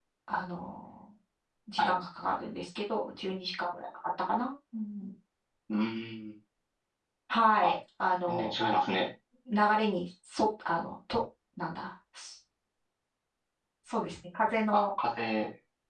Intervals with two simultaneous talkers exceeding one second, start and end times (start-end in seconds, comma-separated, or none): none